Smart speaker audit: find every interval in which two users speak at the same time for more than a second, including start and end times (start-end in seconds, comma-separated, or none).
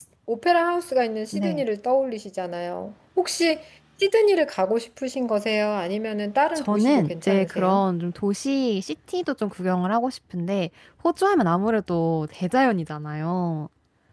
6.6-7.8